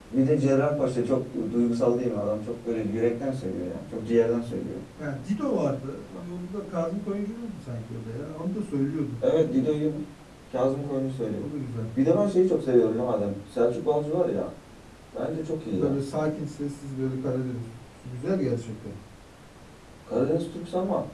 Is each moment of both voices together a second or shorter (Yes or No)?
Yes